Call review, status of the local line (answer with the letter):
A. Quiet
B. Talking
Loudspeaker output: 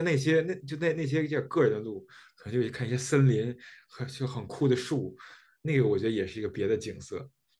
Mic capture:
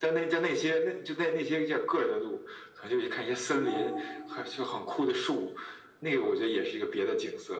B